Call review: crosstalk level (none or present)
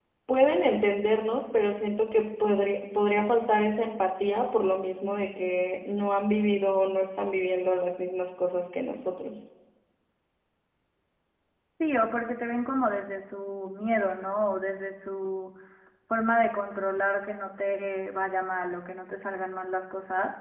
none